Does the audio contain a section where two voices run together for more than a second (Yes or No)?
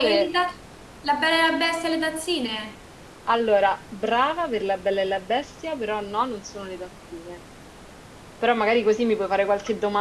No